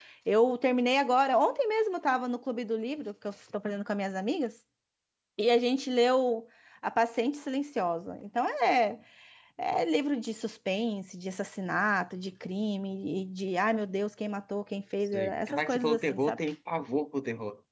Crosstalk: present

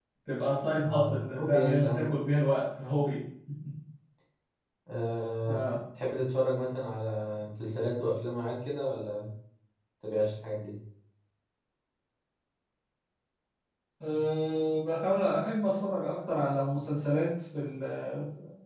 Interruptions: present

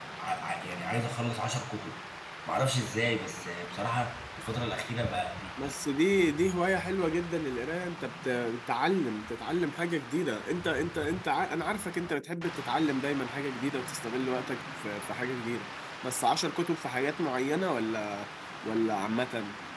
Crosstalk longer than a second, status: none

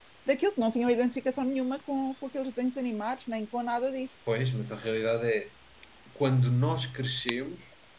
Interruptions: none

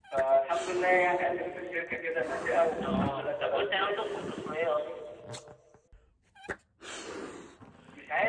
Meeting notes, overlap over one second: present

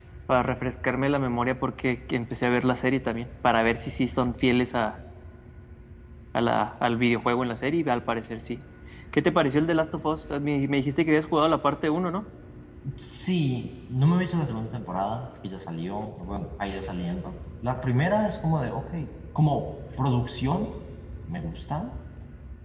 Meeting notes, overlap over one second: none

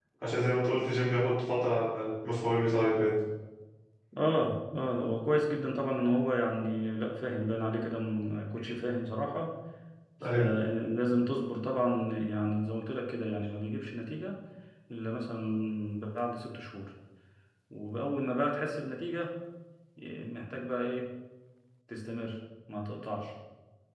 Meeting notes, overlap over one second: none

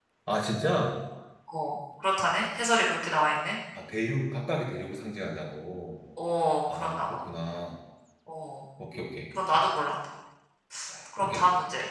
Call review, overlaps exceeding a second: none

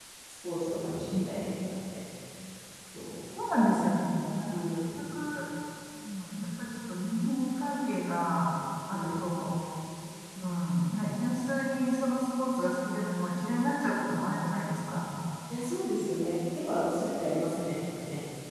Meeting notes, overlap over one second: none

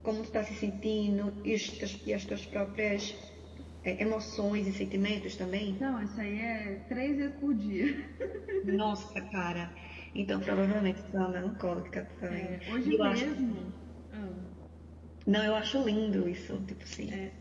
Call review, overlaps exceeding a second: present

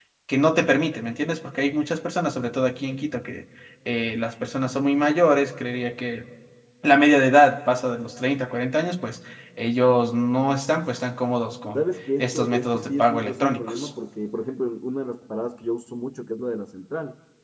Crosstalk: present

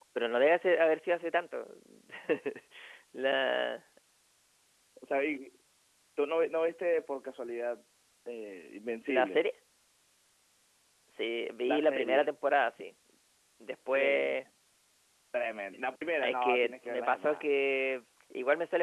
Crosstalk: present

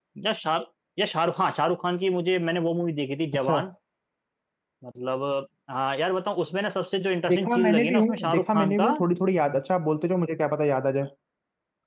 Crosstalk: present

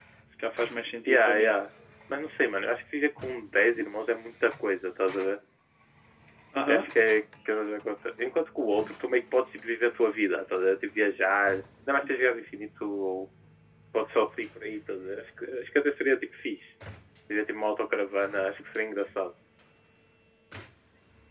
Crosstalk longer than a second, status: none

